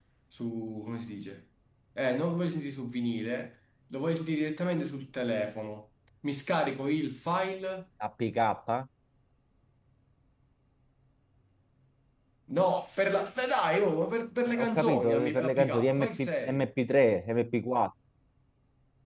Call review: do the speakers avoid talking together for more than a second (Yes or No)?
No